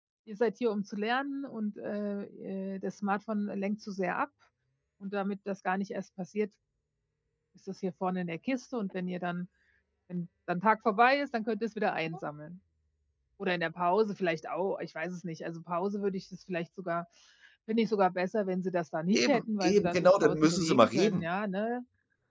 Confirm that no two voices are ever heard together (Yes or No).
No